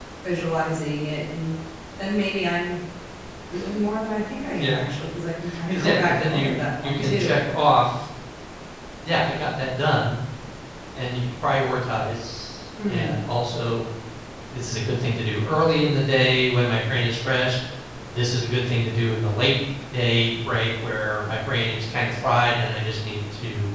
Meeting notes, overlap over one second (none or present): present